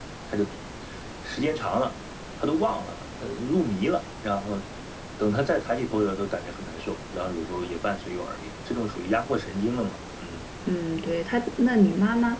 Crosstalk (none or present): none